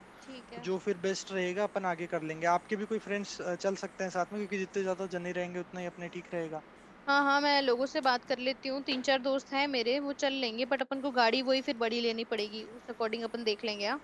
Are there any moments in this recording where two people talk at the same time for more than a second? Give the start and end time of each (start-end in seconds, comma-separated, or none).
none